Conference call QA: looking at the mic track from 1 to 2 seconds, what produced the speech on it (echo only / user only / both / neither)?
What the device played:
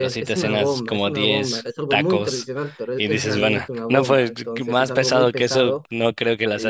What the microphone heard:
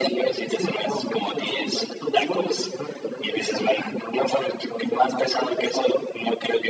echo only